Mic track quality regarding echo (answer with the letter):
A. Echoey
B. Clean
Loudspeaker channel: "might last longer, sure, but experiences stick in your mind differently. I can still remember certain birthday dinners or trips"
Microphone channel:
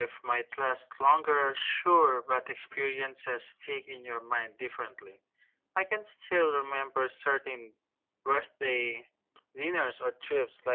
A